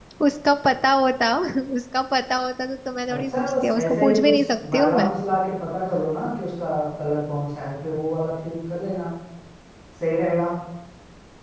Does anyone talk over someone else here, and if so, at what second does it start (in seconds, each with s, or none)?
3.1 s